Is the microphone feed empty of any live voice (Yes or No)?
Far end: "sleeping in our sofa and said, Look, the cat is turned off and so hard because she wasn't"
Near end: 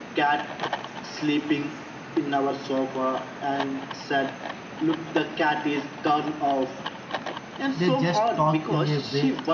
No